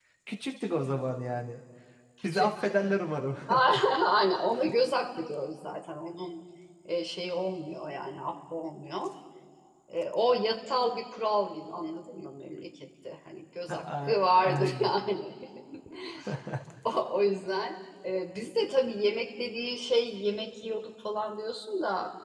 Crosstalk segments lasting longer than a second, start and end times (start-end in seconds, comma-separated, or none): 13.7-14.9